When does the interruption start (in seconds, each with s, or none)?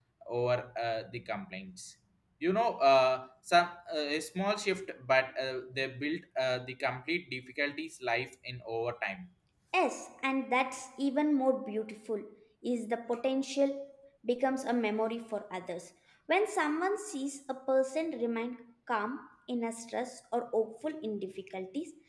none